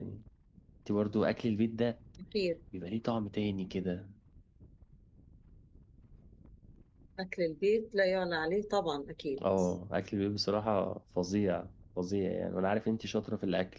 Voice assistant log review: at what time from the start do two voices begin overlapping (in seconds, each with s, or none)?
none